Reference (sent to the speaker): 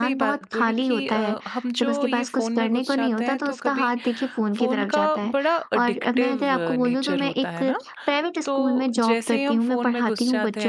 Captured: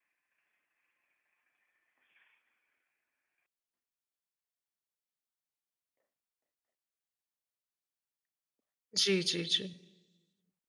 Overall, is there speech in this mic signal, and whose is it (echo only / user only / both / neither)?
user only